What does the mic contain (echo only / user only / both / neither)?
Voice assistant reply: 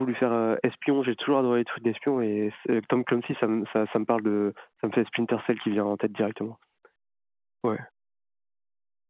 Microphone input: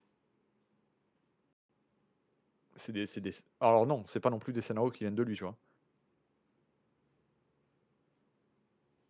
user only